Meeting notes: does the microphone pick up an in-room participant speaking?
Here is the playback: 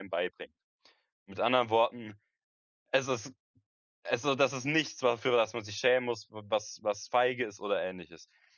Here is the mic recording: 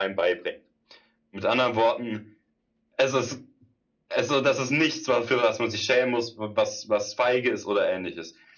No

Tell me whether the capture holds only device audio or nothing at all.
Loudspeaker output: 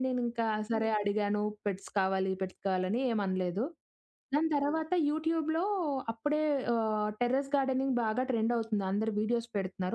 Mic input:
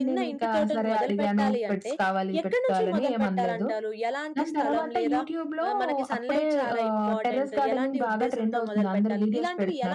No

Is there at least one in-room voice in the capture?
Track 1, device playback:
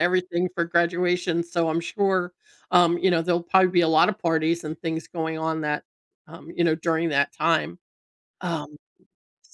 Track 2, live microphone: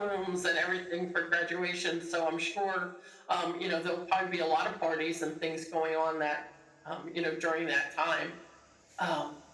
No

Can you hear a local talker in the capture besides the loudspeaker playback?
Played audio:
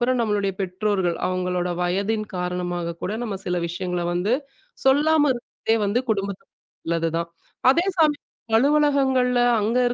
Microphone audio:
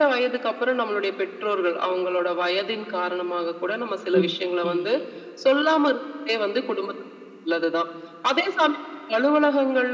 Yes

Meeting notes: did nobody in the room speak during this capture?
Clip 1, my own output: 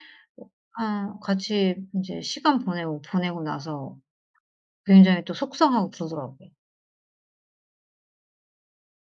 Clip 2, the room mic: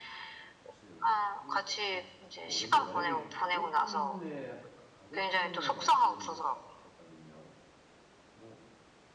No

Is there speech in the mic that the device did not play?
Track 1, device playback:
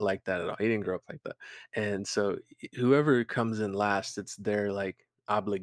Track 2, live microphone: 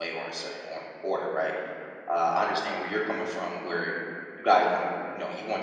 Yes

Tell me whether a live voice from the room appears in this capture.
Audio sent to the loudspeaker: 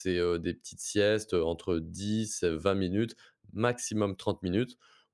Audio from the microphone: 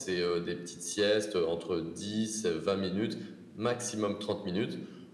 No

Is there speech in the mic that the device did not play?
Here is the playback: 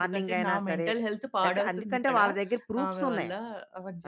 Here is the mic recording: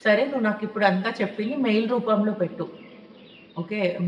Yes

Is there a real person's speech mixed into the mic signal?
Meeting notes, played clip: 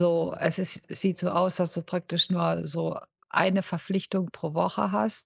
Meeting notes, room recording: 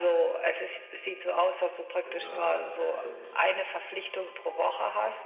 Yes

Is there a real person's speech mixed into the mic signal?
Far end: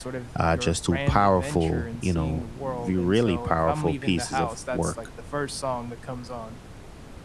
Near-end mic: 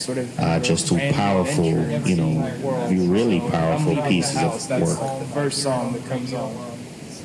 Yes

